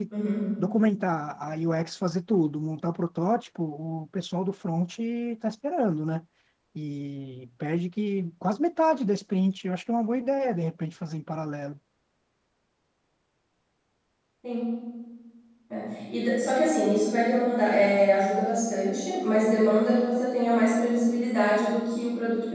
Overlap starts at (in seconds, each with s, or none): none